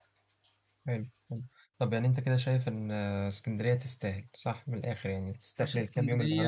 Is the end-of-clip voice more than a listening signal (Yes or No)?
Yes